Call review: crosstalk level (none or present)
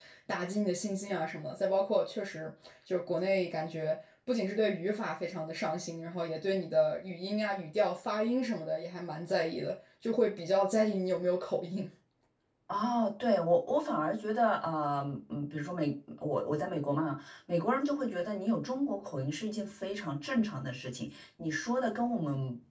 none